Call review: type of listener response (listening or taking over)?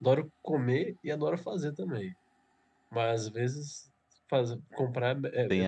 taking over